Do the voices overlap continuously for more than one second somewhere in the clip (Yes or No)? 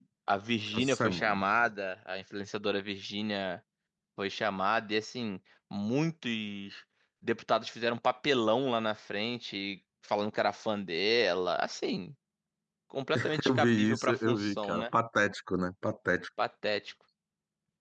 Yes